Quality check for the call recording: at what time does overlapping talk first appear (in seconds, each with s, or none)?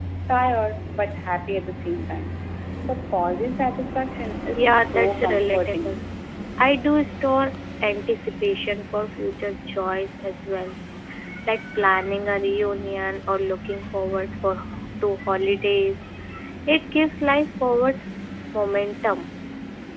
4.5 s